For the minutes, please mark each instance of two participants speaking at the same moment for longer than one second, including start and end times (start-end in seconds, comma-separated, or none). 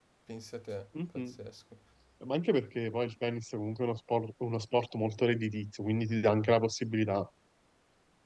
none